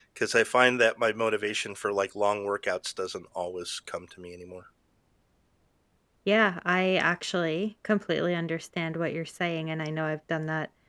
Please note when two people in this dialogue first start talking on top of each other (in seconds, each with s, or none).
none